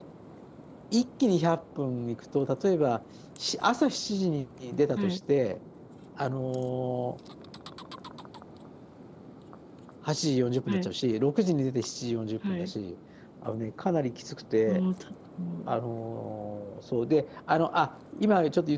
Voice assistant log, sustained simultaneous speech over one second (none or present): none